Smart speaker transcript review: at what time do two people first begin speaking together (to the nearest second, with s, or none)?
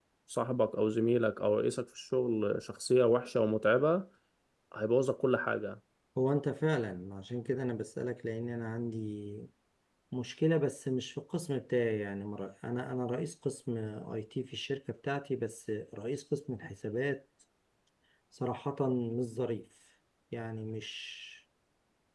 none